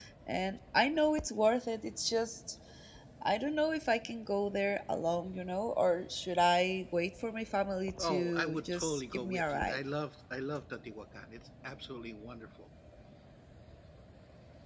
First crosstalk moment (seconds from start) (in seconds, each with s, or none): 8.0 s